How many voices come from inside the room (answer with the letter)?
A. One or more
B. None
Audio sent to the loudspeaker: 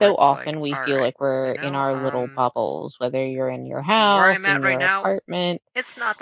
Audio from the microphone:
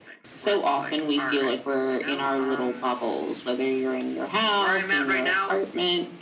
B